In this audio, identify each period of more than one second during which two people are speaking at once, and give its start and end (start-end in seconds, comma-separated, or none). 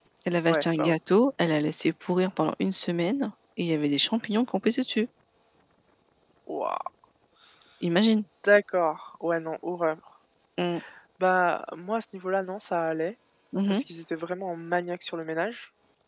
none